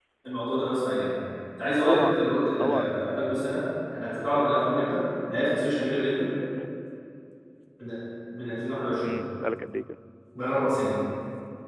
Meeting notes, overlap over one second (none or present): none